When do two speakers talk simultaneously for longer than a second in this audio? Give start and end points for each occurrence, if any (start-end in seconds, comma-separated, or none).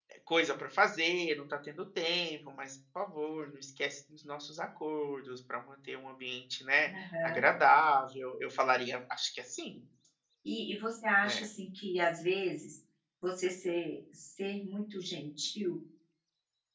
none